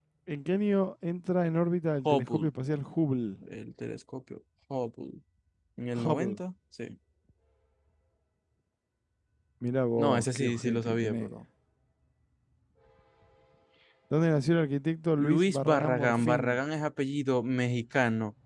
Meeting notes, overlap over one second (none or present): present